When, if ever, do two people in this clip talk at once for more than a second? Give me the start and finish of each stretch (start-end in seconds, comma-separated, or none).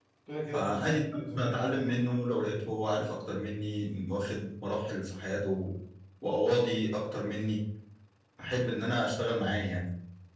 0.5-1.8